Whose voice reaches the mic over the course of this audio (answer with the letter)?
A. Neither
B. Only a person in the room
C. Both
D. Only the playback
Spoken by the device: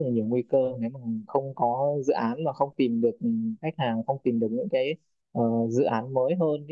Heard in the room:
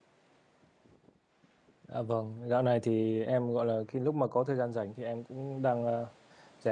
B